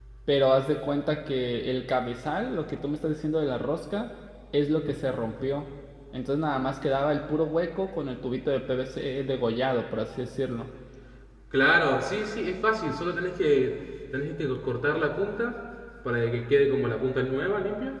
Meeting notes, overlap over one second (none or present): none